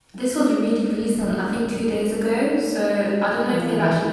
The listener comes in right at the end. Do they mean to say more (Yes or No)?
No